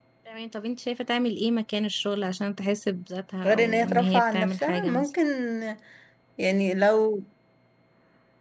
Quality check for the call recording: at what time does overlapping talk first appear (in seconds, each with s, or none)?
3.4 s